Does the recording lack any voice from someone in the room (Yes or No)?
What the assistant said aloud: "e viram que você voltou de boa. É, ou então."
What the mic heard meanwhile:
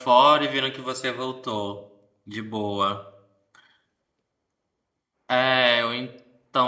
Yes